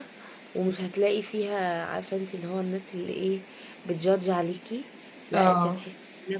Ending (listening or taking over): listening